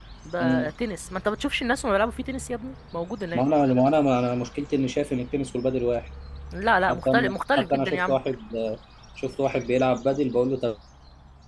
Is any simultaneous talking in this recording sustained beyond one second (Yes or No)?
Yes